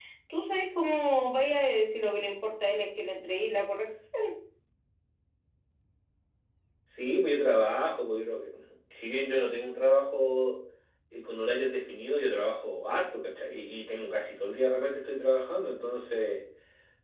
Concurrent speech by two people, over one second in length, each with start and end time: none

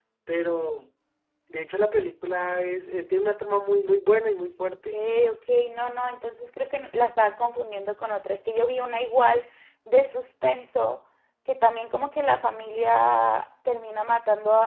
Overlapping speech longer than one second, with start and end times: none

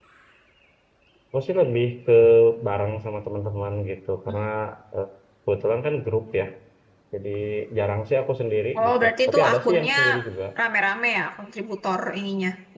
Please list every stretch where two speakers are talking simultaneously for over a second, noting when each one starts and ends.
8.8-9.9

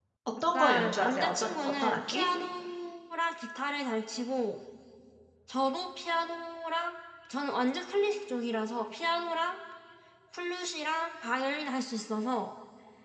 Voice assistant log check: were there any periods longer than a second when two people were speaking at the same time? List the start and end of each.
0.5-2.3

